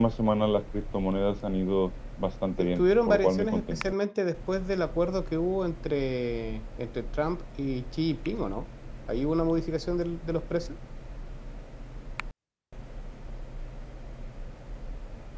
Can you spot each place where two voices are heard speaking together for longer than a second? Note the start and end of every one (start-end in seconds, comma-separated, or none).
2.6-3.8